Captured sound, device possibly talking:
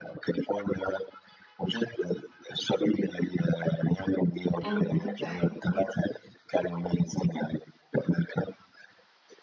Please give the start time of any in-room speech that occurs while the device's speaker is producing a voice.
4.6 s

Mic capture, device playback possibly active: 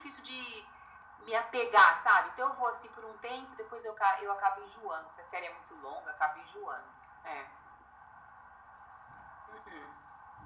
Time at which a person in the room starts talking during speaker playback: none

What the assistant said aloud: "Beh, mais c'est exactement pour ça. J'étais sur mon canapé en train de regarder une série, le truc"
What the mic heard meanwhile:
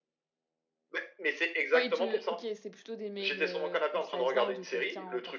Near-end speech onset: 1.7 s

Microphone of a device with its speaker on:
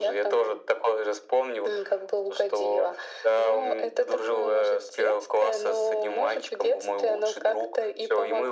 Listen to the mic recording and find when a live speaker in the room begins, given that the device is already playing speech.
none

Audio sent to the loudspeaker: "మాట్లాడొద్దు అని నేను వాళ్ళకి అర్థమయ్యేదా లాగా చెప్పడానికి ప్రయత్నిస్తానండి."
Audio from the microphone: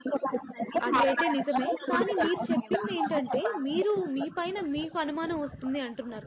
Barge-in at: 0.9 s

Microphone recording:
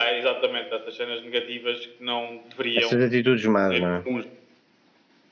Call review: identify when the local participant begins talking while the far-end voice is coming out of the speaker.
2.7 s

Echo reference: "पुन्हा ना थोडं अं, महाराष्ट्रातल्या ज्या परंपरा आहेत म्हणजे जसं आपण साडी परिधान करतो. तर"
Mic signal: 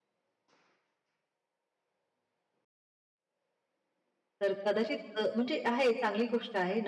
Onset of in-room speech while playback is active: 4.4 s

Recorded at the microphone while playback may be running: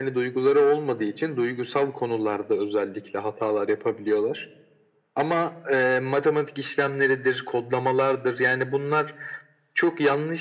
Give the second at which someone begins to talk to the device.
none

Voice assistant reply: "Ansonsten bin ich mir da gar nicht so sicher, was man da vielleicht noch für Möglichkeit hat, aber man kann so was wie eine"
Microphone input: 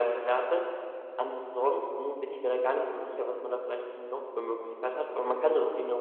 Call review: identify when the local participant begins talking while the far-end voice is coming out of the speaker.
none

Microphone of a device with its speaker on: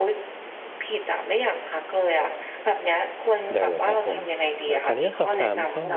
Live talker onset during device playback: 3.5 s

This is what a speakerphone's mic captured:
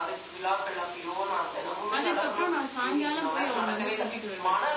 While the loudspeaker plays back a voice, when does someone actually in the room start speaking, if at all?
2.0 s

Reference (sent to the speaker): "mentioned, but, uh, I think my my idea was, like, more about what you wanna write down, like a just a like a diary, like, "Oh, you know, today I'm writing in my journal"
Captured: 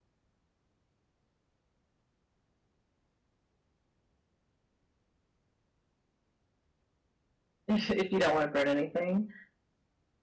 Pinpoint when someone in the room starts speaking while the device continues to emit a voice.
7.7 s

